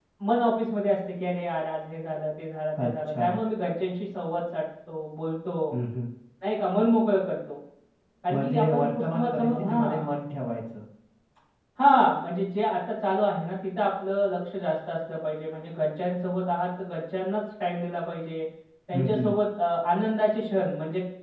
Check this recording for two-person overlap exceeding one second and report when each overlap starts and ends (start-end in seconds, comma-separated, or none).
8.3-10.1